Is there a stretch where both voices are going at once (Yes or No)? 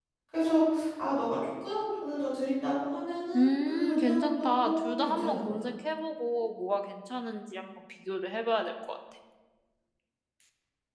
Yes